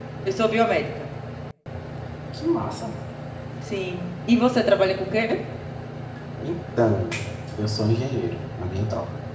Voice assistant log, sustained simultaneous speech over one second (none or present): none